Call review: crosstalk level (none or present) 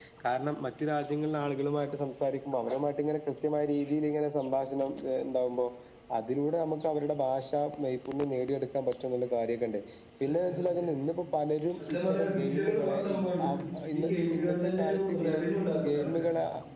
present